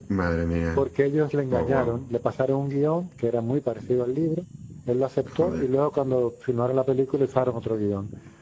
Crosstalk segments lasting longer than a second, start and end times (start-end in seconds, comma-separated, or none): none